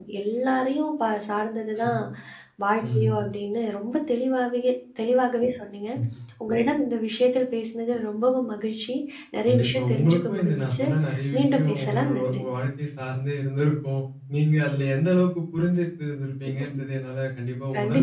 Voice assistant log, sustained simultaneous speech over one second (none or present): present